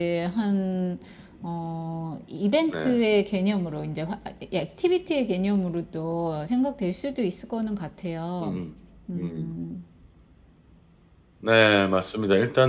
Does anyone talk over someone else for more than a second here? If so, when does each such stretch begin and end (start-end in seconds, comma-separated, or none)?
none